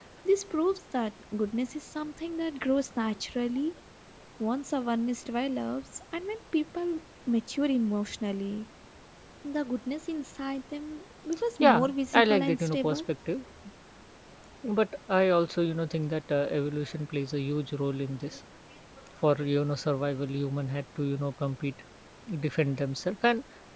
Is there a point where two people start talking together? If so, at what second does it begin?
11.6 s

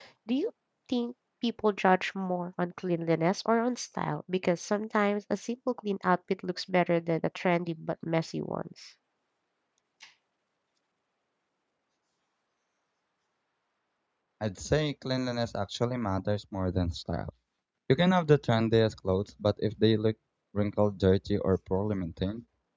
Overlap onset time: none

